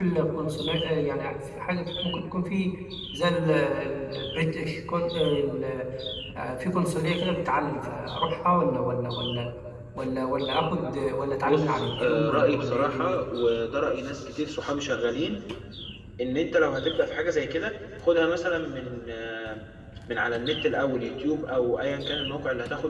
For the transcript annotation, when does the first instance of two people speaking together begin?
11 s

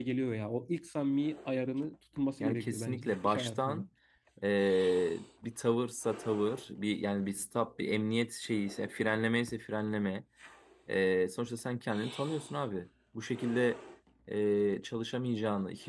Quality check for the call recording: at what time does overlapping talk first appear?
2 s

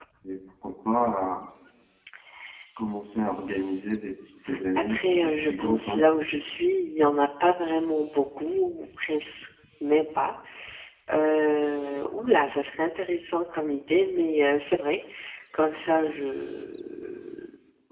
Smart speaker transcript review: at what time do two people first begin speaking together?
5 s

